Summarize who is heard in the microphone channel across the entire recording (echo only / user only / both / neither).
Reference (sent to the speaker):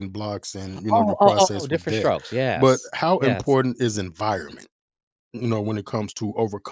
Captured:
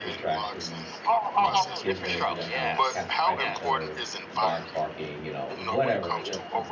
both